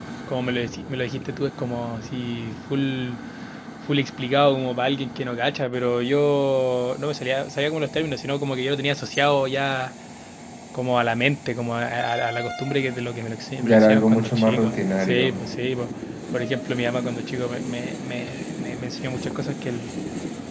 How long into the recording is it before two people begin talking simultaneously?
14 s

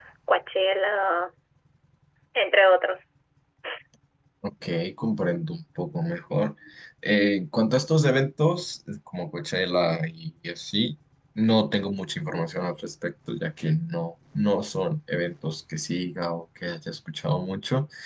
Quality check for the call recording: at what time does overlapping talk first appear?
none

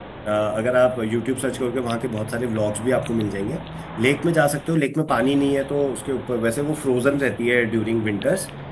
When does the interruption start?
none

